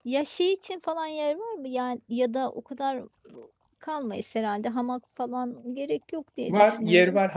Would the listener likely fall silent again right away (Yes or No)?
No